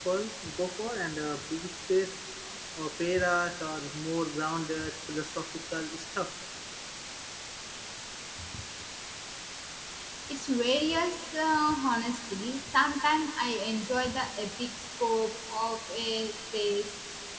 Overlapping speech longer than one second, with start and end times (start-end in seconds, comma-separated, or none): none